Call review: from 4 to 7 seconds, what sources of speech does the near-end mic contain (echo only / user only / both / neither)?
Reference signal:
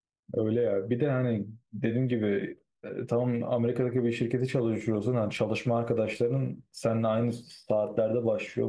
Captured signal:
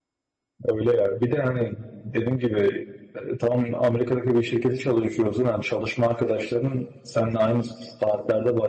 echo only